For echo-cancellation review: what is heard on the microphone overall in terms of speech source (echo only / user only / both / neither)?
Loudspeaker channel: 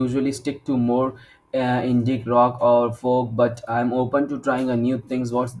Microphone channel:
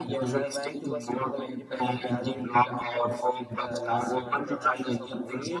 both